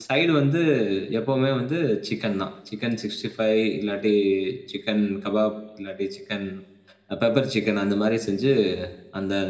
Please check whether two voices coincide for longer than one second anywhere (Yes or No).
No